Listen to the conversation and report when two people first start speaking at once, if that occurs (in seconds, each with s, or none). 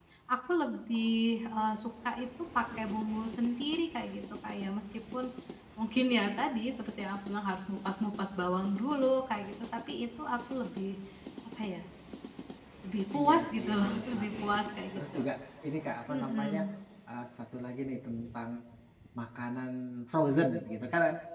13.2 s